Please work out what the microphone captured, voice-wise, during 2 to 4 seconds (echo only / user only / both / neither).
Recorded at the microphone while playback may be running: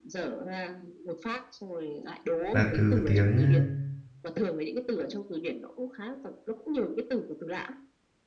both